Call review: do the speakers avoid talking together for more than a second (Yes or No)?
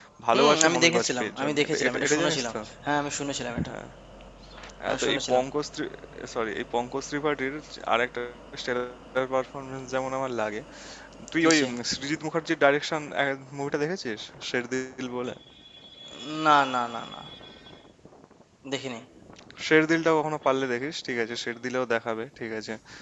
No